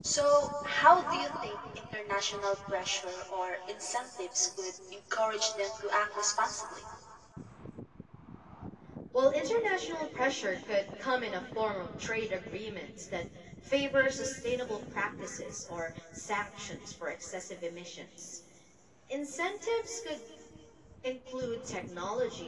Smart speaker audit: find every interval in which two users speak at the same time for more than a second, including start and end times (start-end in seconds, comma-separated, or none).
none